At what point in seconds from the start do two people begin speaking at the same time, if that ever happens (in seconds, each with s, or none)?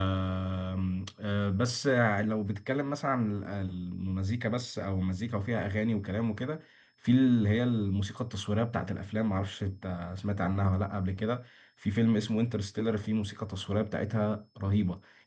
none